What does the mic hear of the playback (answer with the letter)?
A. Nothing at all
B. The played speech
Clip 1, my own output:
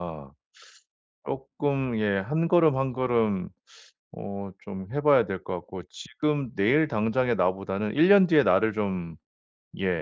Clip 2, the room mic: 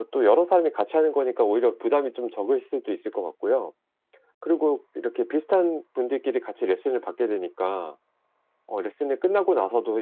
A